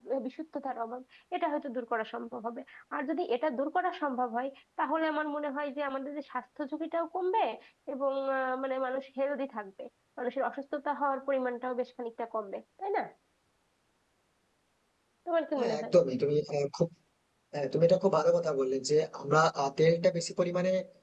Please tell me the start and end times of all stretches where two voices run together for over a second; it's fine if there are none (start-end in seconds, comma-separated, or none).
none